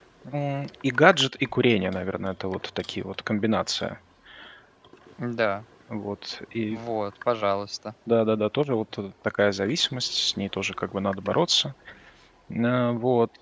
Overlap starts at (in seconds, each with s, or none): none